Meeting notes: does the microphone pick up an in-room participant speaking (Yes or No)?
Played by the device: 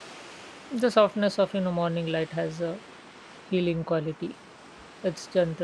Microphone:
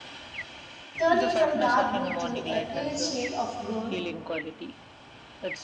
Yes